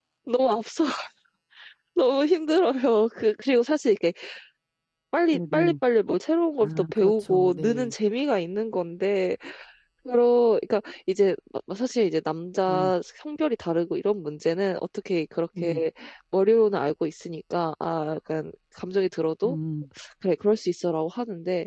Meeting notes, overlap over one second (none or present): present